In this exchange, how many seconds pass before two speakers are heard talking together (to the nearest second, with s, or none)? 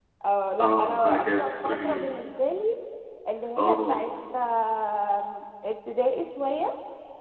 1 s